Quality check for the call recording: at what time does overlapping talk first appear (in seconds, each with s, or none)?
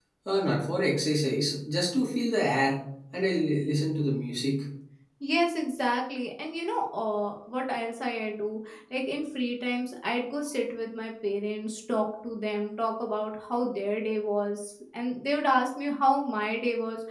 none